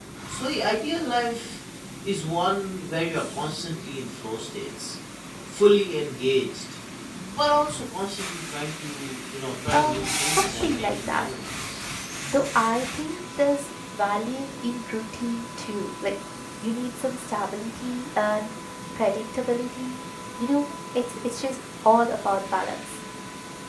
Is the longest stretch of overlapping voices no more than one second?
No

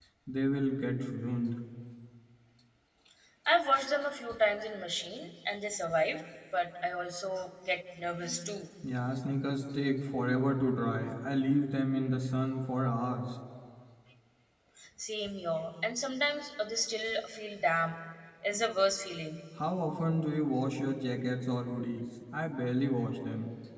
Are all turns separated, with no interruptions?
Yes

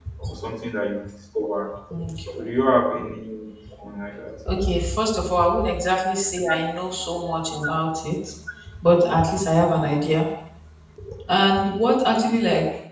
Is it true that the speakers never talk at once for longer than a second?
Yes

